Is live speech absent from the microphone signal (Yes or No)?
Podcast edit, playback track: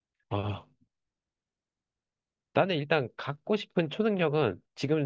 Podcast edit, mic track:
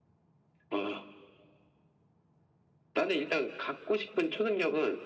Yes